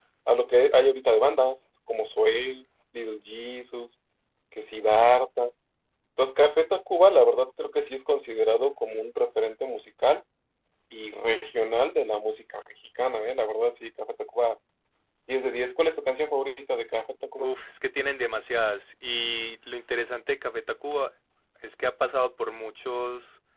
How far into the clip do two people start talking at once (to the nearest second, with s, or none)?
none